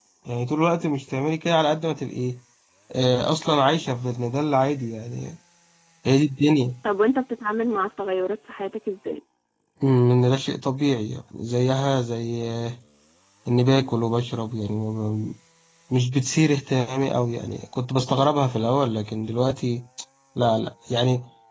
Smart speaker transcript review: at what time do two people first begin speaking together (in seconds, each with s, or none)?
none